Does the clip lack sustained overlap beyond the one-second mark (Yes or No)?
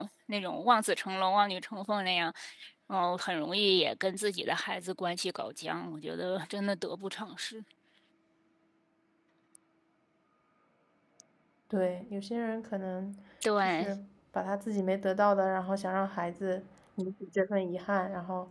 Yes